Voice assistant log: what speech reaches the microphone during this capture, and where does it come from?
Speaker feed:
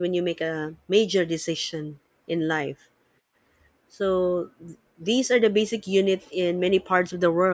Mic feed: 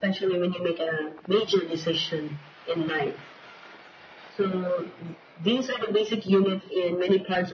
echo only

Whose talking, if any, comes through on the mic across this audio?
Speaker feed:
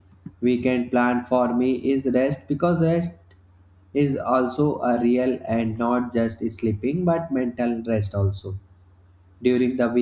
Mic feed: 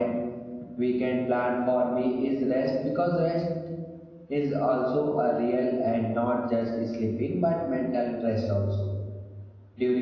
echo only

